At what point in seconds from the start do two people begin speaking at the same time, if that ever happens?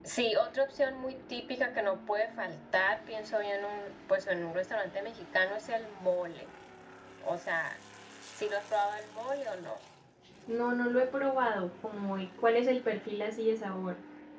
none

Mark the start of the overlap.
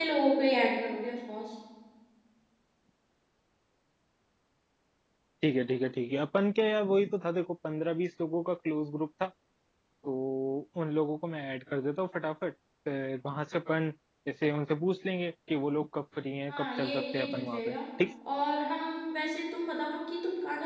16.5 s

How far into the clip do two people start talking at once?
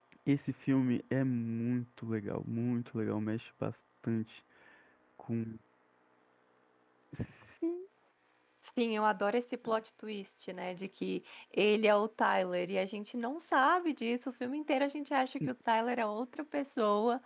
none

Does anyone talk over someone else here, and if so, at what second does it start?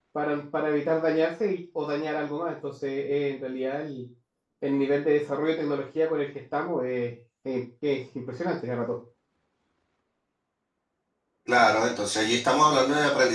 none

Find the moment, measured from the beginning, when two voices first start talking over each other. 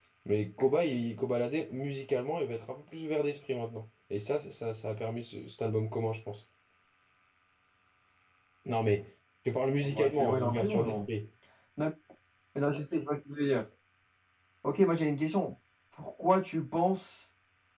9.8 s

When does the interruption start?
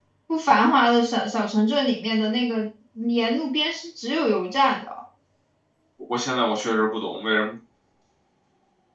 none

